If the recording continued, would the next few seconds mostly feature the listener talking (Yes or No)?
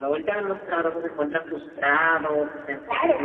Yes